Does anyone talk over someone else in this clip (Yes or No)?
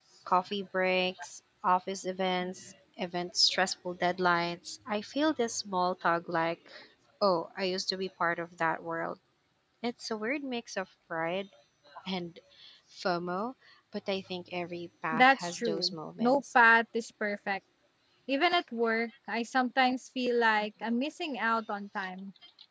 Yes